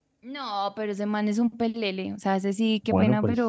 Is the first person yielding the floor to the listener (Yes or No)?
Yes